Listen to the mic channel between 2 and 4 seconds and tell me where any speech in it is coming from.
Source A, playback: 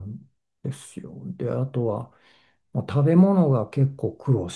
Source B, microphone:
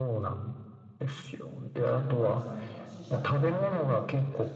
both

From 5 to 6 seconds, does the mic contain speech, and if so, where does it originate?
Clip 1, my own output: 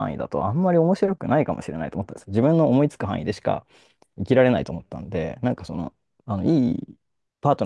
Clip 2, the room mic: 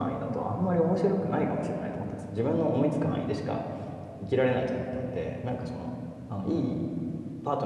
echo only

